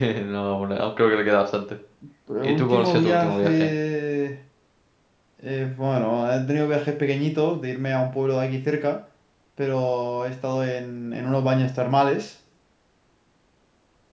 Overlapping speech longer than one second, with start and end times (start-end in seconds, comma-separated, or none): 2.4-3.7